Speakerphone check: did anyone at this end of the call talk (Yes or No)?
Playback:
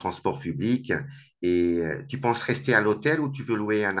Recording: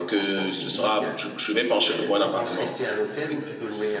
Yes